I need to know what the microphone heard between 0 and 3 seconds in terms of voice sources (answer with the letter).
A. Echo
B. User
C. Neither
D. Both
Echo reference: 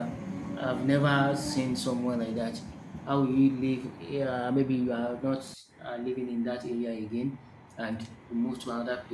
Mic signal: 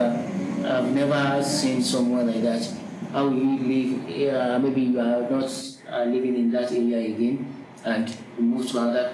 A